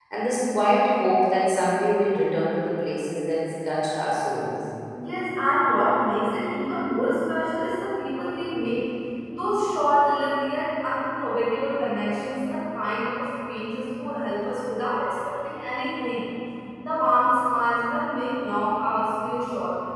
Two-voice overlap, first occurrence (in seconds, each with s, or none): none